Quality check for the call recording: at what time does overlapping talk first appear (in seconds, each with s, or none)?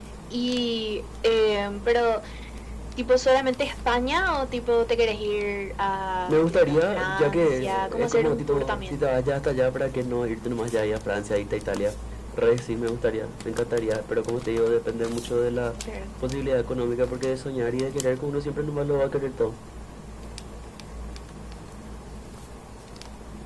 6.3 s